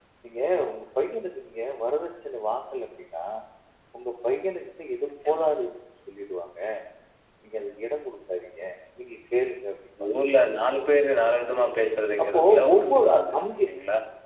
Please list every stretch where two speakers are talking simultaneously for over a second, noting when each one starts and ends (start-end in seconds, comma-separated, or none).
12.2-13.7